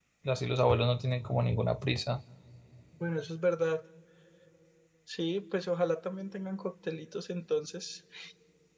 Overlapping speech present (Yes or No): No